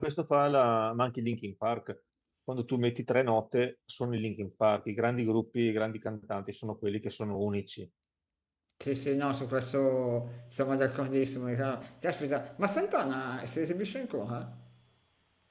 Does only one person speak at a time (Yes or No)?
Yes